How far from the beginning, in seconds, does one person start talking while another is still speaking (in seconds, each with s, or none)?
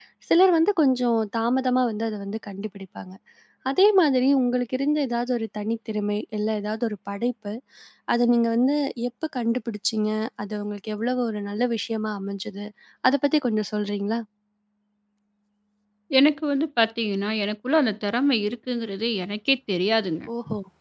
none